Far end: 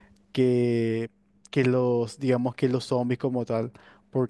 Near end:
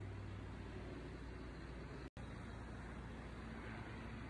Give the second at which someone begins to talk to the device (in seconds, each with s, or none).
none